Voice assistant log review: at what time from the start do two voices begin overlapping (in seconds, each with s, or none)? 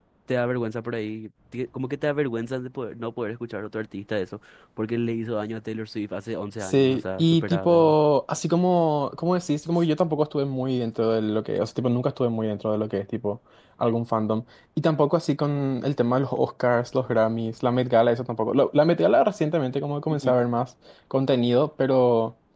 6.6 s